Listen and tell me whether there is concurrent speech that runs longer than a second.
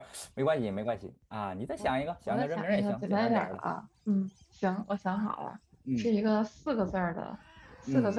Yes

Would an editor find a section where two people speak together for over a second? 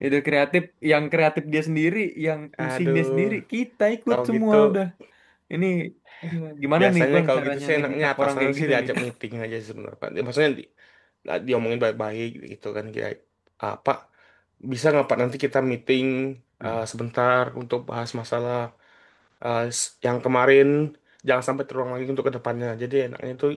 Yes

